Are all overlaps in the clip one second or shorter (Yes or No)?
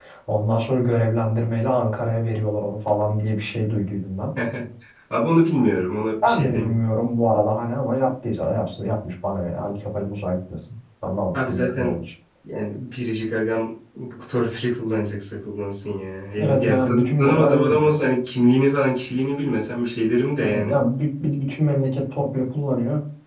No